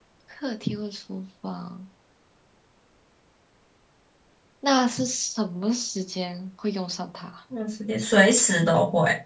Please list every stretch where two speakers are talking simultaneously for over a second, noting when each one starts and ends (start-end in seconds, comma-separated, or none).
none